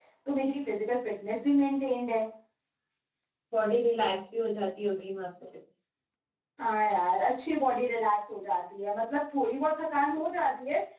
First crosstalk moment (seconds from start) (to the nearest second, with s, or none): none